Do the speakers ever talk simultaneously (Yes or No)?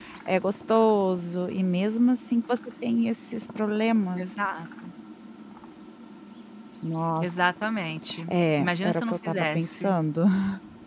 Yes